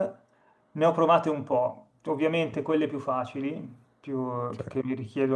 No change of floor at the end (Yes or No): Yes